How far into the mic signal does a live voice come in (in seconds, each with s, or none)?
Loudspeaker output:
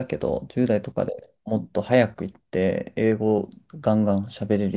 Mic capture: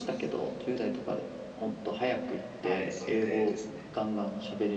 2.6 s